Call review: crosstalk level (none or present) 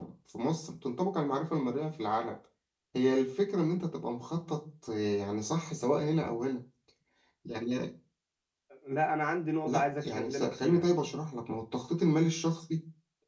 present